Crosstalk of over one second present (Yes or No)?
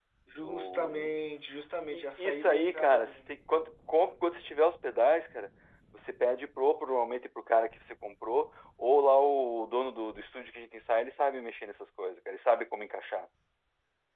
Yes